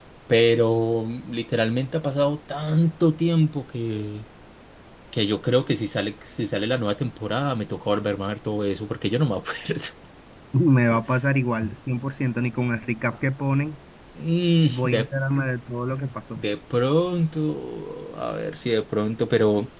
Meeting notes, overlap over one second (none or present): none